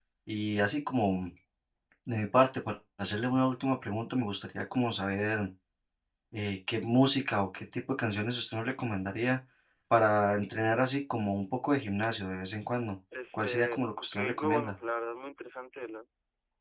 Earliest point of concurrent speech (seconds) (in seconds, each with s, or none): 13.1 s